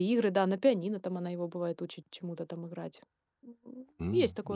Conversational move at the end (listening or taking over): taking over